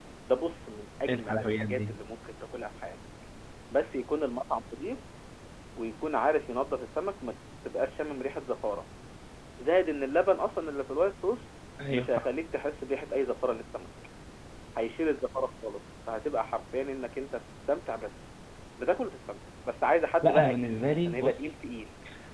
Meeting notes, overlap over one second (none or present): present